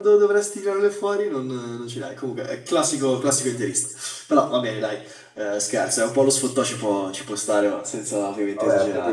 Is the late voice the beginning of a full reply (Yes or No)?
Yes